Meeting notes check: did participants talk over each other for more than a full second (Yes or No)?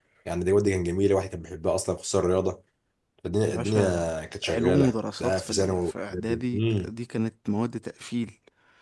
Yes